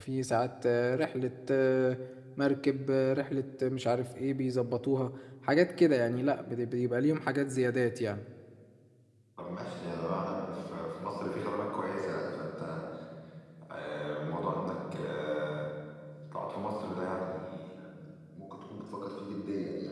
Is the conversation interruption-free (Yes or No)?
Yes